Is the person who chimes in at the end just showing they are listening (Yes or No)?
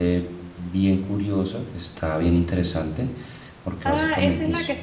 No